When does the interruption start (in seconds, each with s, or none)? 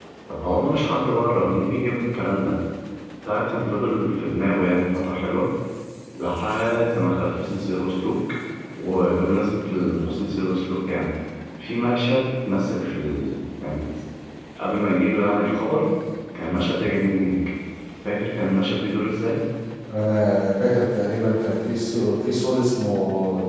none